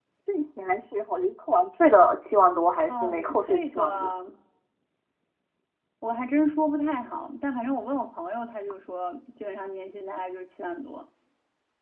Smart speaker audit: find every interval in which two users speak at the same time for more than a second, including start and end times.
2.9-4.1

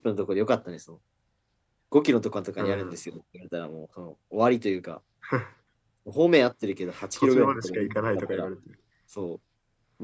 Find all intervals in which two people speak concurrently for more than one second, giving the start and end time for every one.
7.2-8.5

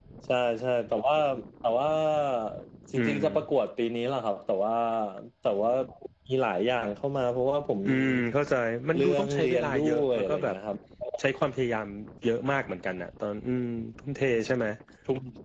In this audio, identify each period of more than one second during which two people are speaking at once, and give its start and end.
8.9-10.6

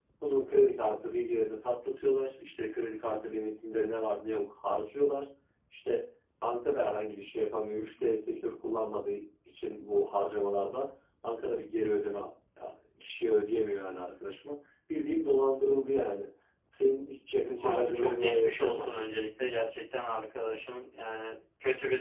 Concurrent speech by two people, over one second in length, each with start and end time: 17.6-19.1

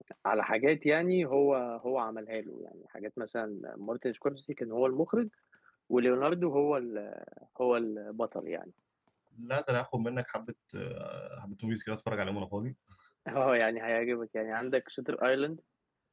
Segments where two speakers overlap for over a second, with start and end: none

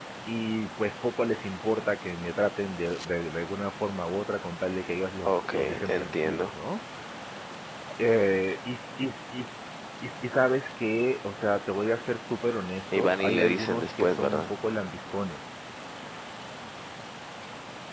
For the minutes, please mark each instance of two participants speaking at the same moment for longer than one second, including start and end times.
5.2-6.5, 12.9-14.5

